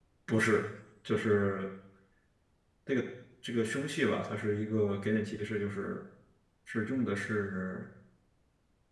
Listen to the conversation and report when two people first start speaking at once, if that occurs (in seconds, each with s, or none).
none